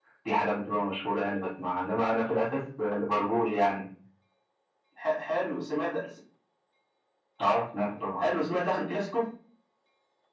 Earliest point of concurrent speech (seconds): none

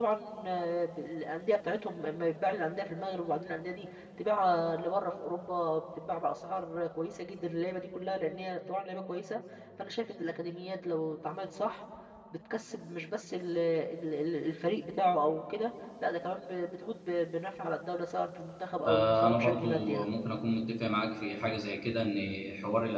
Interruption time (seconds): 18.9 s

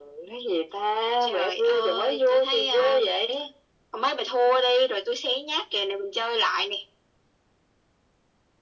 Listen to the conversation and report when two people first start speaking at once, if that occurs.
1.2 s

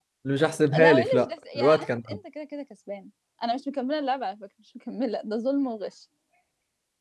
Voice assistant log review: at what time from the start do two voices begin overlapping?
0.8 s

